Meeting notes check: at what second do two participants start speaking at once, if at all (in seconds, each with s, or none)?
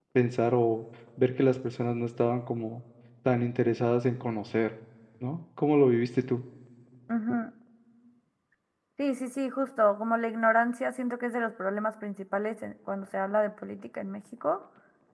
none